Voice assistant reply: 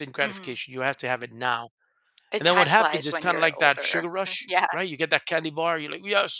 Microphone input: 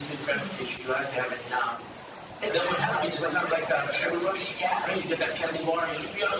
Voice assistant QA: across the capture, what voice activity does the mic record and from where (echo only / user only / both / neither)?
echo only